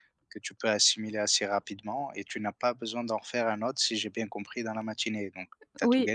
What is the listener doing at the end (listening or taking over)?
taking over